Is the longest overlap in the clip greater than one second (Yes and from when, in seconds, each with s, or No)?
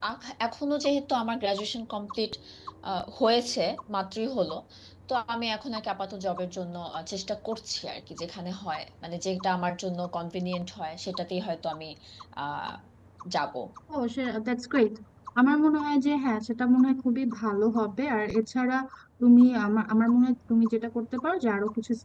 No